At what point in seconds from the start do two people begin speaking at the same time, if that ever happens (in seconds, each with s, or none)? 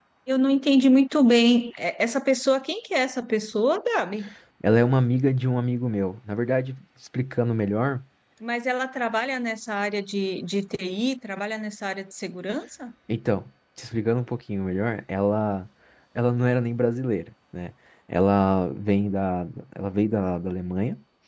none